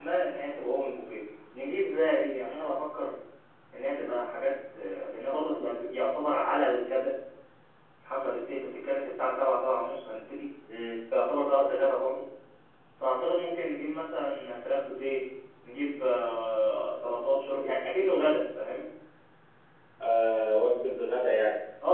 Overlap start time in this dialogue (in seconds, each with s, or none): none